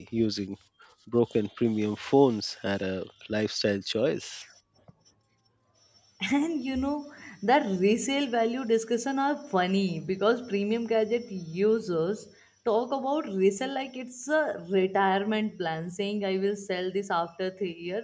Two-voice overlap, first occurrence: none

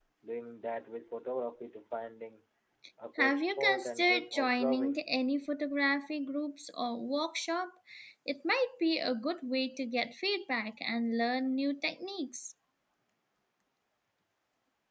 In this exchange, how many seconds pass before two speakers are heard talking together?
3.2 s

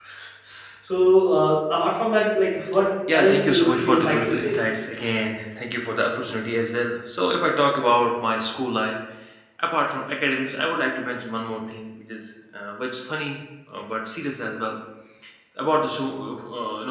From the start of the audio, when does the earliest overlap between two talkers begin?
3.1 s

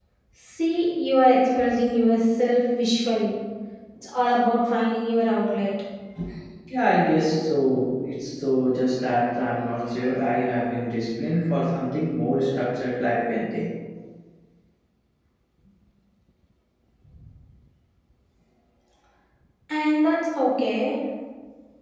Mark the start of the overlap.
none

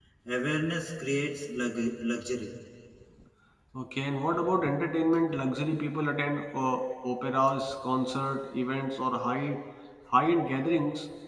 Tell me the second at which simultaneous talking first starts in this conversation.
none

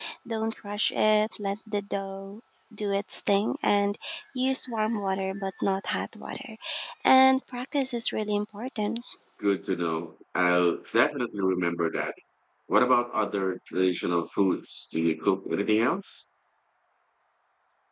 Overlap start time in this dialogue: none

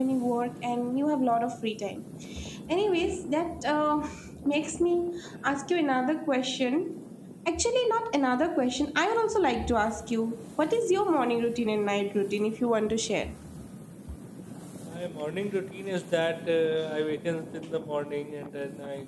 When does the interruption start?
none

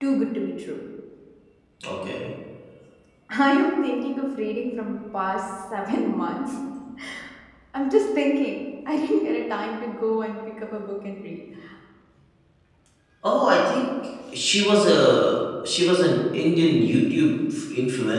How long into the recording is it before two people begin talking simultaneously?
none

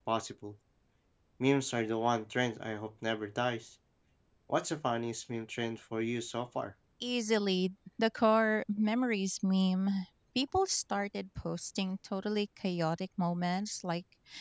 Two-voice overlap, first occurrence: none

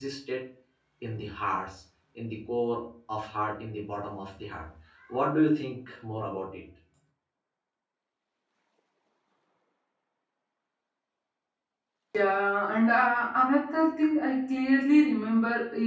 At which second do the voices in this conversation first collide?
none

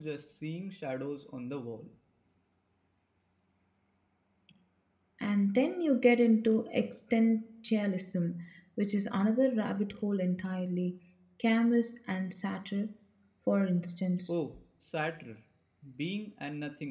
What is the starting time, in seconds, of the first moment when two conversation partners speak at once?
none

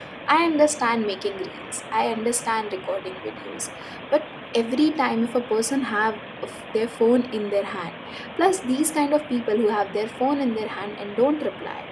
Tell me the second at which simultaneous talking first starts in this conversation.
none

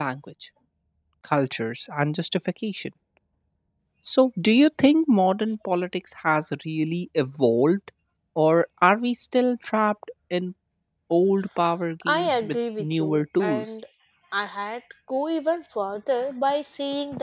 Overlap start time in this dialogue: 12.0 s

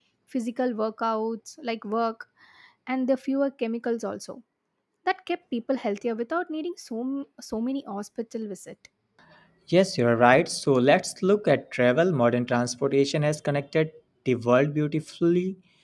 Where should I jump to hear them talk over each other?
none

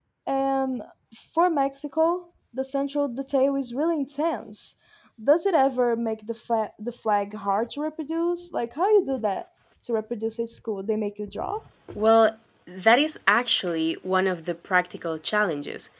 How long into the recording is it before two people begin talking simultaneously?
none

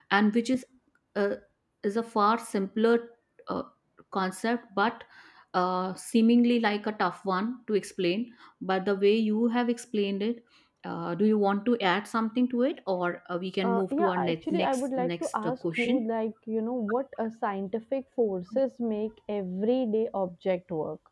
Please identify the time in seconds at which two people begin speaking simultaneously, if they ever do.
13.6 s

